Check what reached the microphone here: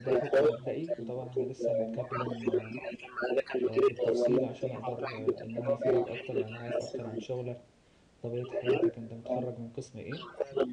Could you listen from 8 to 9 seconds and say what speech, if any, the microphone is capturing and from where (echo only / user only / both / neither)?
both